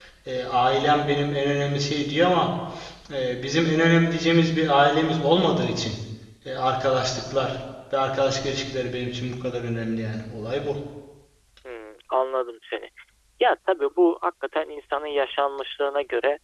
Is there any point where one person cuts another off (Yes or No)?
No